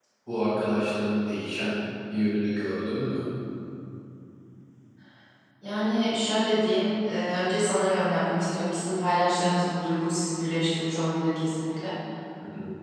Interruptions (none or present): none